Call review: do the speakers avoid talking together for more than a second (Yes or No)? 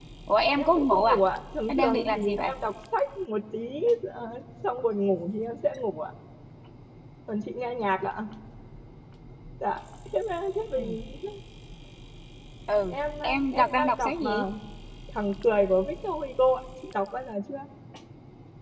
No